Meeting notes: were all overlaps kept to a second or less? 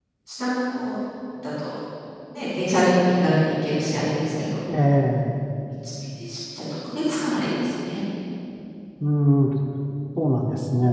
Yes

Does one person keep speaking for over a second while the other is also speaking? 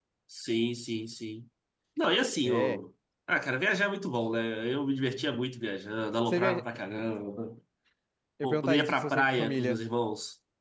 Yes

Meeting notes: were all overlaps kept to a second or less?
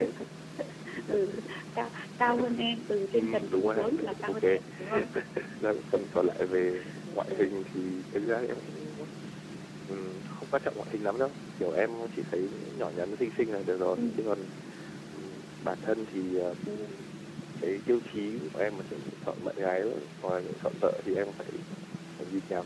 No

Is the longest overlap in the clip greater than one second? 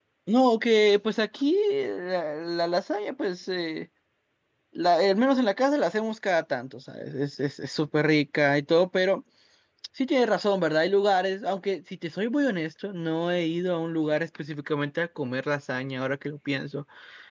No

